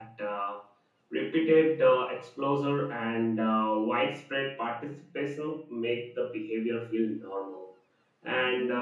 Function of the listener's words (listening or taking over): listening